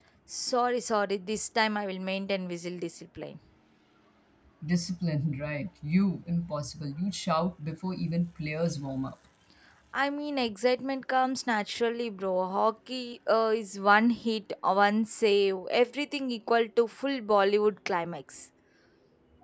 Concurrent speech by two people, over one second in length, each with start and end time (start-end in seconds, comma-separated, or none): none